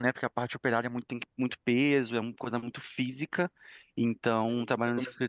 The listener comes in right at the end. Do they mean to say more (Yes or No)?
Yes